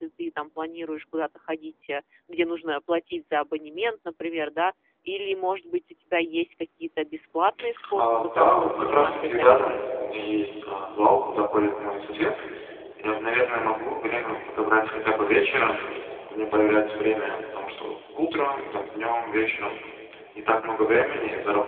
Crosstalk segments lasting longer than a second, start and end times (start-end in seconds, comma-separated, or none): 7.9-9.8